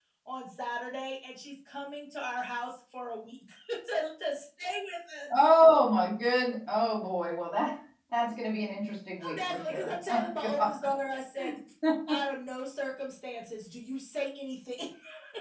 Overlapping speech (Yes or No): Yes